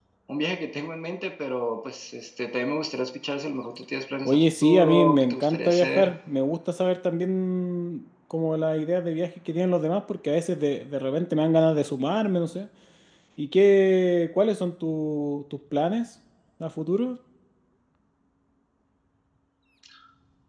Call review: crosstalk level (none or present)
present